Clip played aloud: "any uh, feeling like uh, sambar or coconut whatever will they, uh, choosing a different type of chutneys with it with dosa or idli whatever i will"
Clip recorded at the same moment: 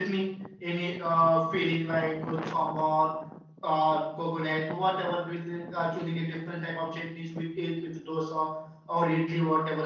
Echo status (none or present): present